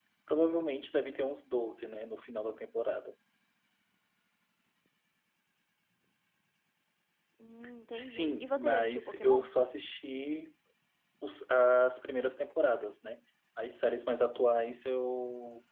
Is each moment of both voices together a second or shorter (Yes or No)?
No